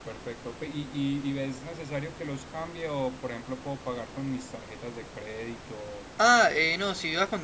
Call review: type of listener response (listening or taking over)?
taking over